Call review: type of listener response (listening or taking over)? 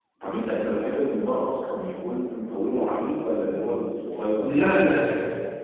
taking over